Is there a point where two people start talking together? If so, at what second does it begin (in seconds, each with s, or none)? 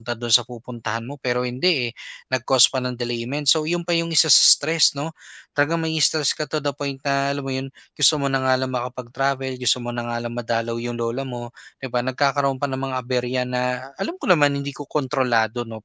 none